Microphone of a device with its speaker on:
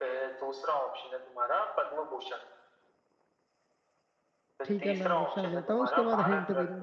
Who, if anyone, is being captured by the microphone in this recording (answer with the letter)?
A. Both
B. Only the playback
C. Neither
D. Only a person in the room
A